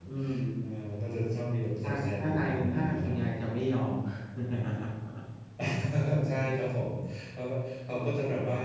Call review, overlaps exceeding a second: present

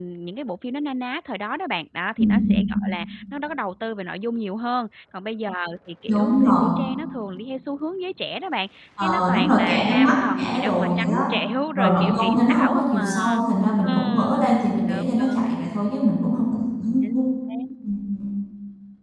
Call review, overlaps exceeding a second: present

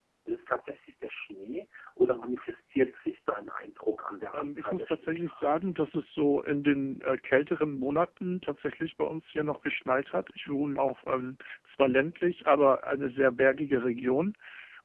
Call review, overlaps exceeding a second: present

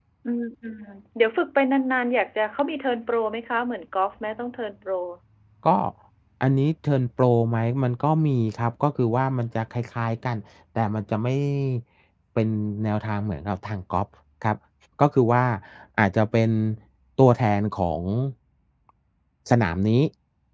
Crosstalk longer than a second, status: none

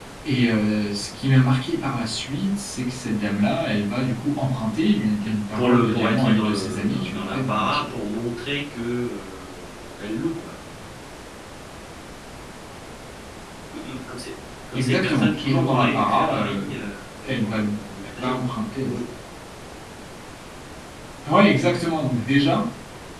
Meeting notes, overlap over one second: present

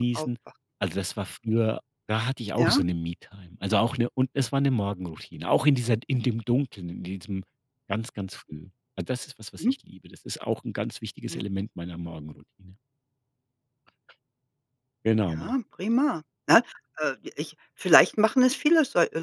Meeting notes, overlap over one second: none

